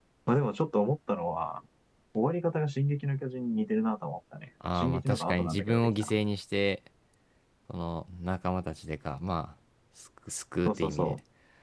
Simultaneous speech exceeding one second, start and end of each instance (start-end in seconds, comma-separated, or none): 4.8-6.1